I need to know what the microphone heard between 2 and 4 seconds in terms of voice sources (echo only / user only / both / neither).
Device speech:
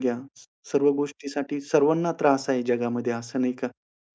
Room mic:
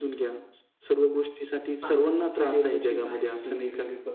both